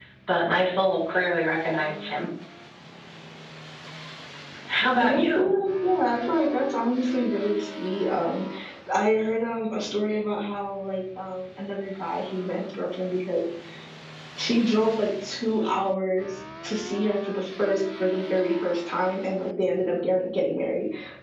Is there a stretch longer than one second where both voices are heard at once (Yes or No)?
No